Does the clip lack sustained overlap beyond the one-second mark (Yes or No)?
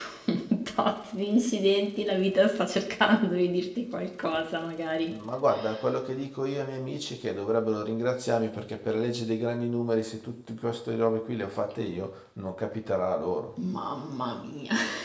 Yes